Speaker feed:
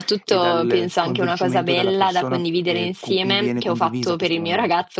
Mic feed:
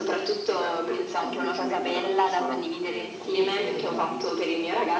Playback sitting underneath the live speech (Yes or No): No